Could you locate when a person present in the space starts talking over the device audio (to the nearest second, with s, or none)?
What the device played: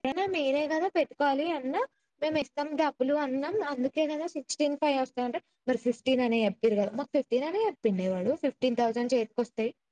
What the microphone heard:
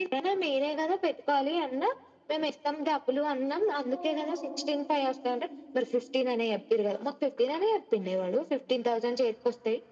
4 s